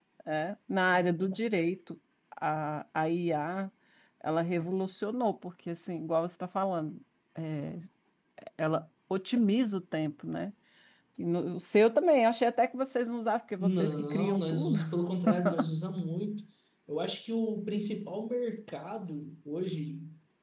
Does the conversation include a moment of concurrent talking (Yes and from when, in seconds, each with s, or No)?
Yes, from 13.6 s